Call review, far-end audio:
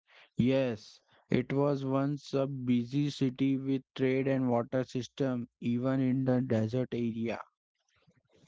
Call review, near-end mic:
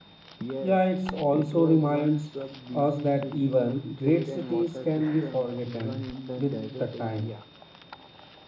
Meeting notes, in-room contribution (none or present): present